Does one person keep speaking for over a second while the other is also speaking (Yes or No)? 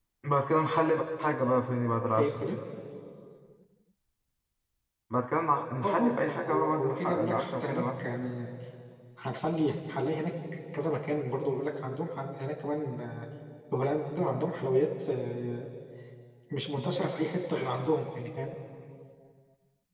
Yes